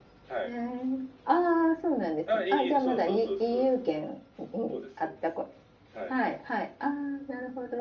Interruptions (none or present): present